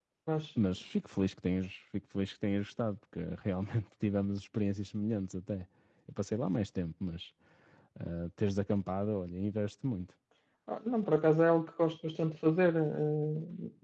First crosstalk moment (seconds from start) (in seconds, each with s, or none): none